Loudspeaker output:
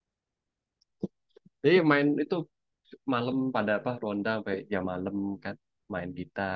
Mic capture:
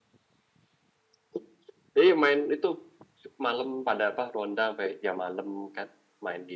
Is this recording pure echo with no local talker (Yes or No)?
Yes